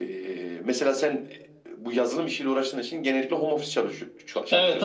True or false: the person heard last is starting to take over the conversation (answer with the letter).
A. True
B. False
A